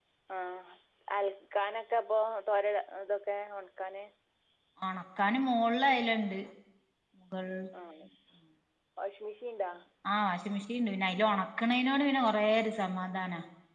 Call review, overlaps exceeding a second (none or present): none